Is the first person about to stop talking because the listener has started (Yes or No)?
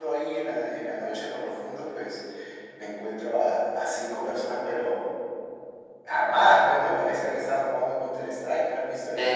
Yes